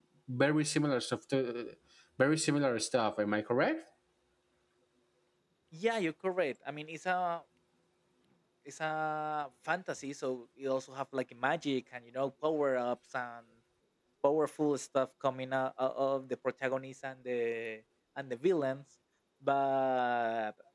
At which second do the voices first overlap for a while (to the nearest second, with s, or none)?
none